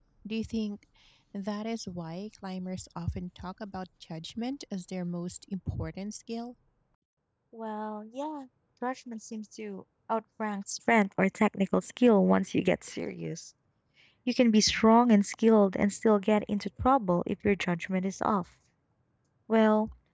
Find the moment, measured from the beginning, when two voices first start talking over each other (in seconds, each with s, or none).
none